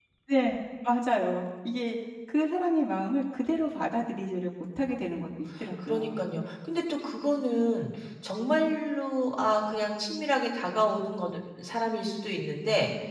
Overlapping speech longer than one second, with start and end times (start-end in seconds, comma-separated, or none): none